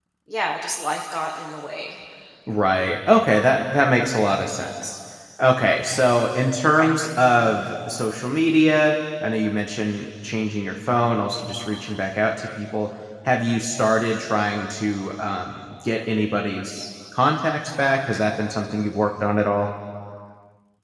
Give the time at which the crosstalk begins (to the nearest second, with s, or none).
none